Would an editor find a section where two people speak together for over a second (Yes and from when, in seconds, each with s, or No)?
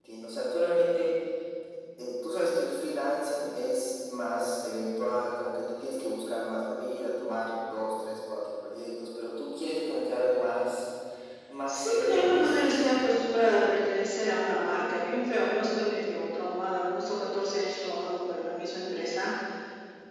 Yes, from 11.7 s